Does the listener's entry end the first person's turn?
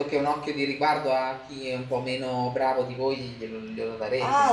Yes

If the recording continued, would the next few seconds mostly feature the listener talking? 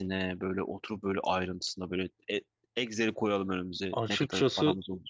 Yes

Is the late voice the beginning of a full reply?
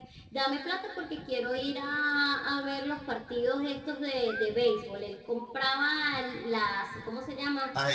No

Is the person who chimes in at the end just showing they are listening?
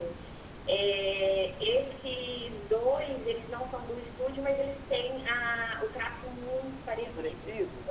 No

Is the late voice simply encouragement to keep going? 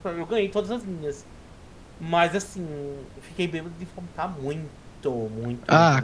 No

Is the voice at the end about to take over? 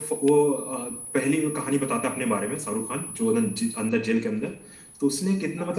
No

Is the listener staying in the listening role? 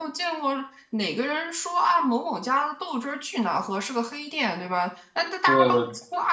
Yes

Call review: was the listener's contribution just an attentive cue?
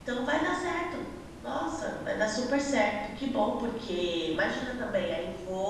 Yes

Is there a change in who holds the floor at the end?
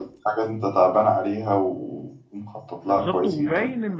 Yes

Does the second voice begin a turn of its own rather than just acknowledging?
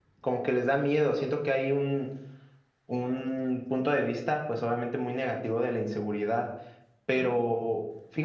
No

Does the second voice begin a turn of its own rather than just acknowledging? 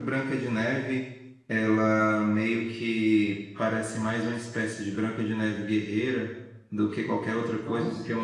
No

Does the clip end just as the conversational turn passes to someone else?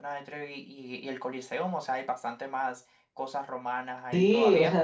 Yes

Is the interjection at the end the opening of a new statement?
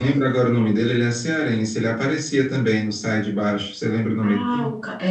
Yes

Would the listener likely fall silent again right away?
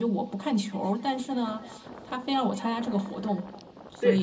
No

